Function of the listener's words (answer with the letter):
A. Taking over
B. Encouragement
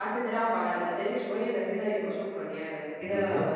A